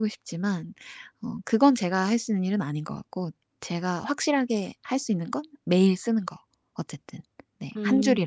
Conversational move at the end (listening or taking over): taking over